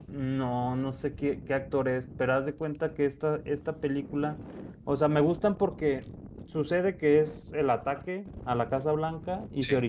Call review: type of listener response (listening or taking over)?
listening